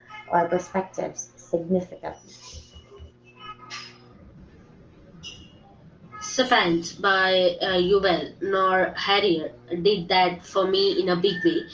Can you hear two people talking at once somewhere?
No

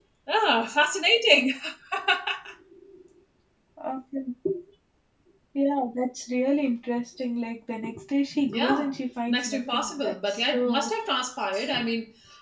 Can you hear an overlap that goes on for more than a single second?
Yes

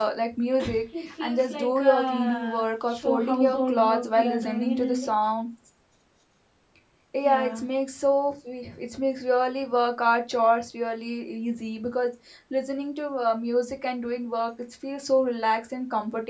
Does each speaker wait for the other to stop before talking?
No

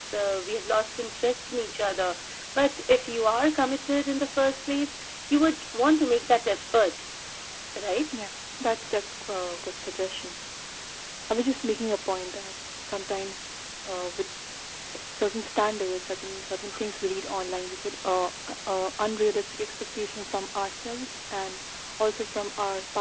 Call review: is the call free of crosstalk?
Yes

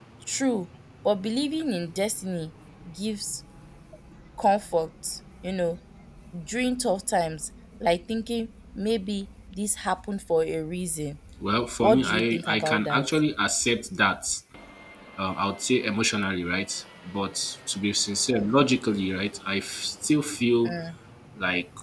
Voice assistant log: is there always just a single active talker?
No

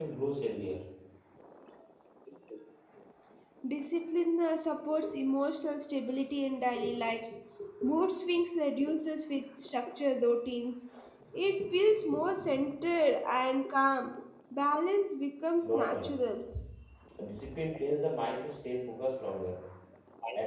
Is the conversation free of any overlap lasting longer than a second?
Yes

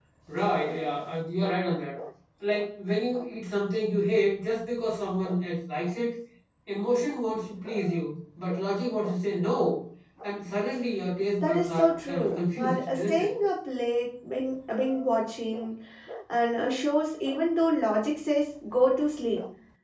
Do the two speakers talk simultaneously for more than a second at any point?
Yes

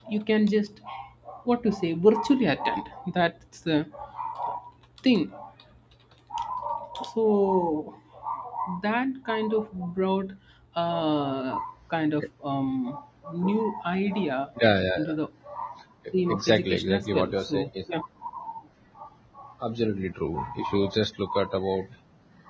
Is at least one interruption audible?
Yes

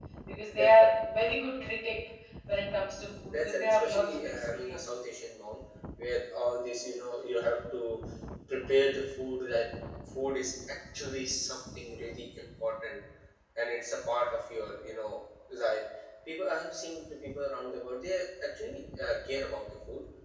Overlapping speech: Yes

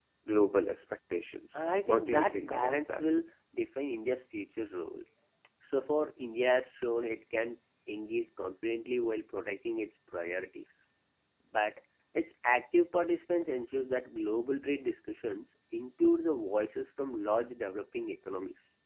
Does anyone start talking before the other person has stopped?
Yes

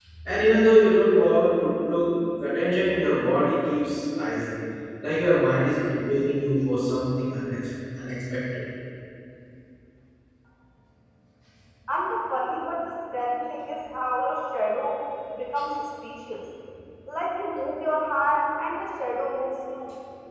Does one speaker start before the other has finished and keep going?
No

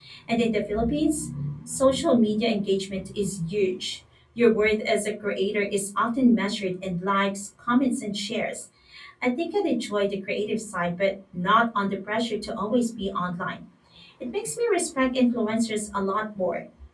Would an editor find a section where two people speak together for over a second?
No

